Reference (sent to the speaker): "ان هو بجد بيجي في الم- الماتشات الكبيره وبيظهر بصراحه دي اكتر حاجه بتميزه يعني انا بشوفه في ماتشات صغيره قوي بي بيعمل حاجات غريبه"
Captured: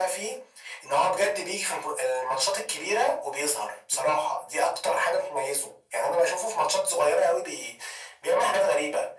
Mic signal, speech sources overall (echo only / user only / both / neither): echo only